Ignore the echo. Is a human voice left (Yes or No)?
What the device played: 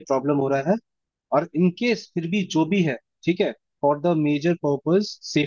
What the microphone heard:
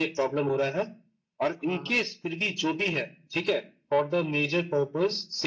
Yes